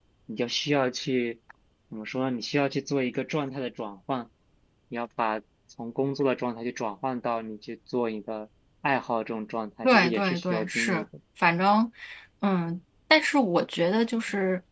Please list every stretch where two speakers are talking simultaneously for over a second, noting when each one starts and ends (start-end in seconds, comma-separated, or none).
9.8-11.1